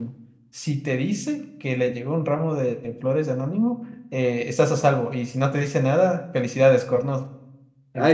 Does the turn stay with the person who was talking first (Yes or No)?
No